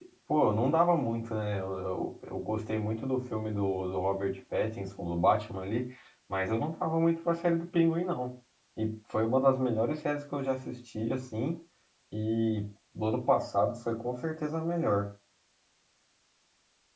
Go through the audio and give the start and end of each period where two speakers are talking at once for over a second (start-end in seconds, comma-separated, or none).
none